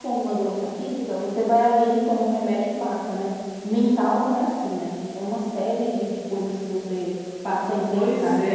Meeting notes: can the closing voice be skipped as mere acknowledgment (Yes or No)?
No